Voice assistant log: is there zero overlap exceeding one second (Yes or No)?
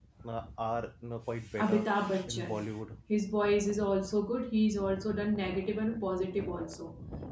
Yes